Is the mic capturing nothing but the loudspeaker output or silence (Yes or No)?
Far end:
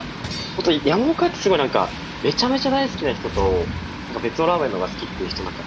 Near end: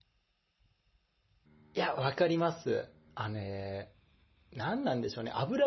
No